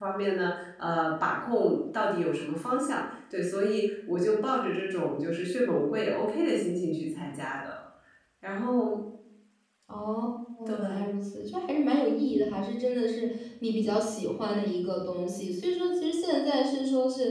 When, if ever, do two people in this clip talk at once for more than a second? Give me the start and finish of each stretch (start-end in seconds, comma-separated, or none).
none